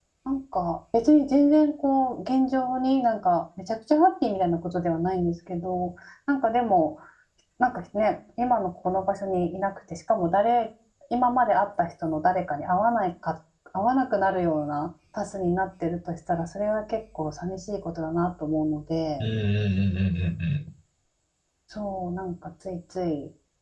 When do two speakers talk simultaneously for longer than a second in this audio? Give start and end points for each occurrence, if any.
none

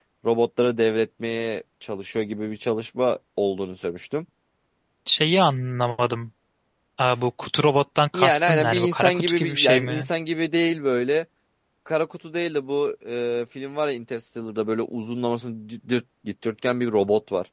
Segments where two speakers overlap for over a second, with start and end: 8.1-10.1

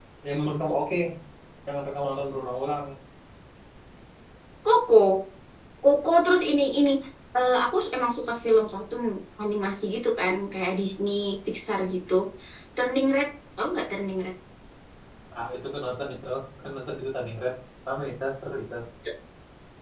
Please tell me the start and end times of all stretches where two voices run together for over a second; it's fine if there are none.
none

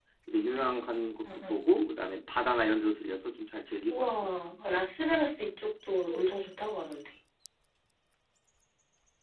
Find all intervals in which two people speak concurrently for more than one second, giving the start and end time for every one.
none

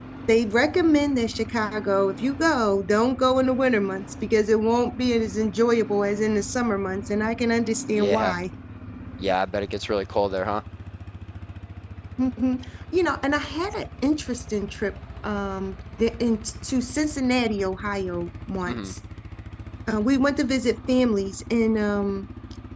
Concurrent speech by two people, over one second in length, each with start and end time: none

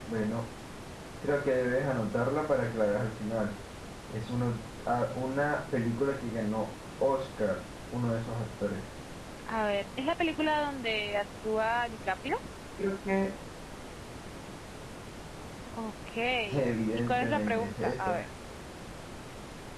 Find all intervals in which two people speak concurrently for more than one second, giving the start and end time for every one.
17.0-18.2

